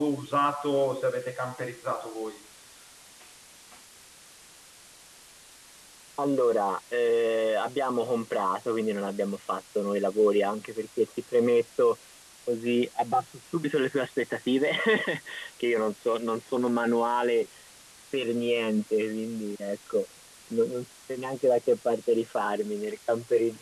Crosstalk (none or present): none